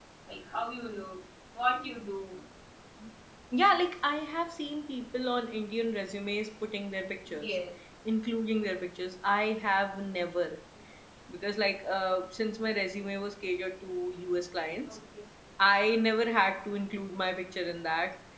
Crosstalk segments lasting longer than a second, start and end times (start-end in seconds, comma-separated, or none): none